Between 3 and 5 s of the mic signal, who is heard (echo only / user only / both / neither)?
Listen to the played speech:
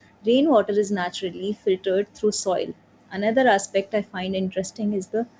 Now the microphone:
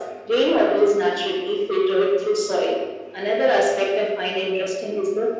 echo only